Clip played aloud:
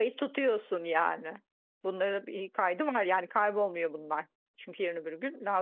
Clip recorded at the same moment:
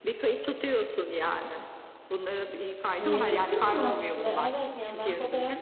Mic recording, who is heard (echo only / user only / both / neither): both